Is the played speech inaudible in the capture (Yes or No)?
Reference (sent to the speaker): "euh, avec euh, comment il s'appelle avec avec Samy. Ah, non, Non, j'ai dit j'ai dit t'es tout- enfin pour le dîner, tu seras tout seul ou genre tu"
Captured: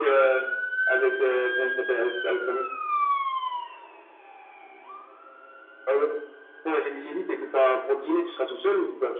No